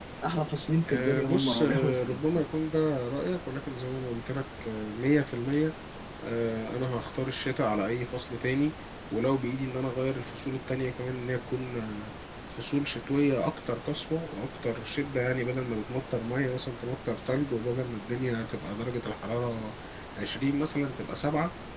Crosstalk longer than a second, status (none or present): present